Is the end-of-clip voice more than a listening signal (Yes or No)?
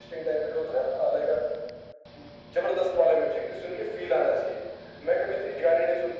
No